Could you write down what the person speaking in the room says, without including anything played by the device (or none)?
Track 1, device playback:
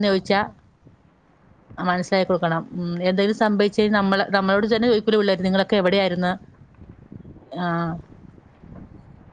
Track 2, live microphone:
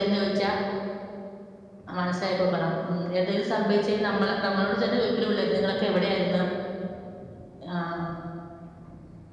none